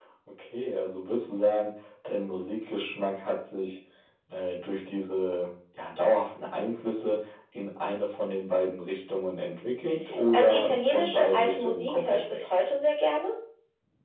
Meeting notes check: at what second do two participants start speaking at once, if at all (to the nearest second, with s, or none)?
10 s